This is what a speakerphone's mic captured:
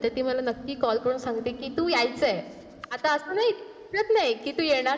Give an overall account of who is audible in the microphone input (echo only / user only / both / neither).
echo only